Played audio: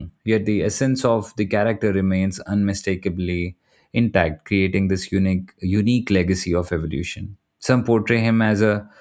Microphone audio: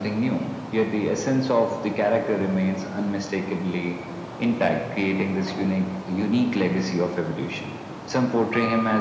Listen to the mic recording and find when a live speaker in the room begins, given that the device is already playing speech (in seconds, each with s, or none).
none